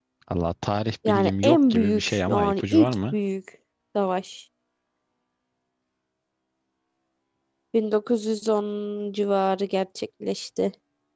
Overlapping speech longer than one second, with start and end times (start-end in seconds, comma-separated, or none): 1.1-3.1